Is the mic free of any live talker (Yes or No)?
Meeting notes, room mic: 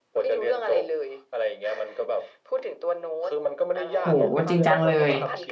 No